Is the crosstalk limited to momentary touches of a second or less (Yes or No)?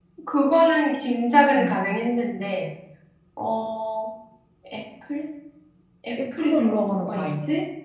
No